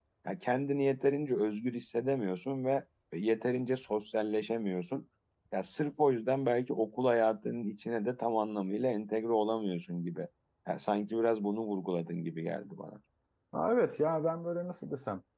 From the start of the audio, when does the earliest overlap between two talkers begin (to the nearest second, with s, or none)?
none